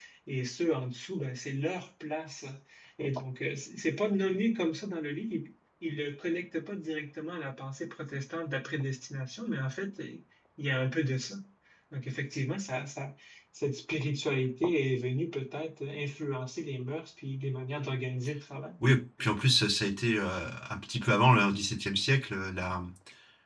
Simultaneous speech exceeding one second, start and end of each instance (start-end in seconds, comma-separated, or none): none